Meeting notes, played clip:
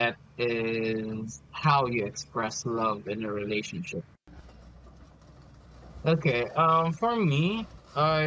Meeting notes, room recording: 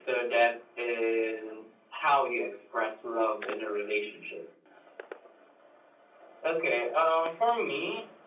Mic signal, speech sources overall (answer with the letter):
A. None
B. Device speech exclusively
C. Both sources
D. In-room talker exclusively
B